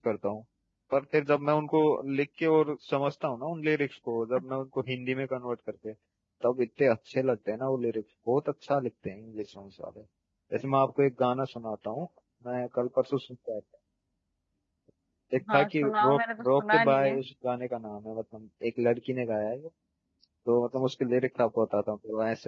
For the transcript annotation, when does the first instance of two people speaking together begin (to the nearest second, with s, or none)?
16 s